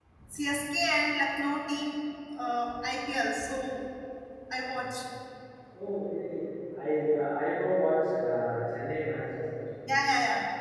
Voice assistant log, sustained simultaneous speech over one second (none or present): none